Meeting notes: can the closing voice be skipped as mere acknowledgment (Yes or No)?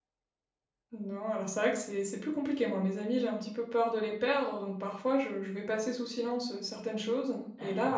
Yes